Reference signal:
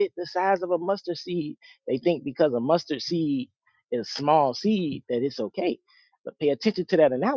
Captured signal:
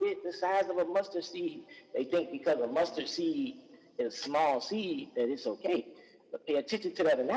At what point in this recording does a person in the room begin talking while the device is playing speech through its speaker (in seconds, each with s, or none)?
none